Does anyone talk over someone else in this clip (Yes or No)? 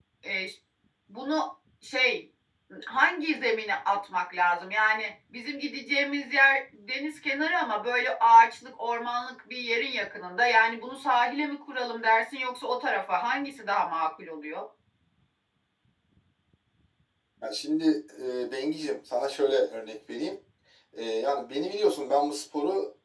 No